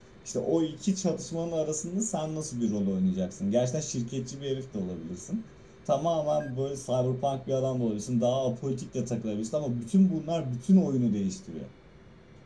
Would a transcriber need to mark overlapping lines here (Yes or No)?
No